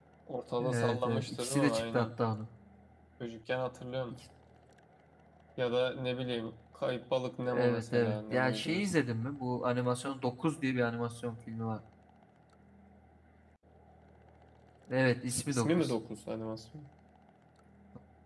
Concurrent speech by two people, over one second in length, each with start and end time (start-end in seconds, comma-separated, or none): 0.6-2.1, 7.4-9.1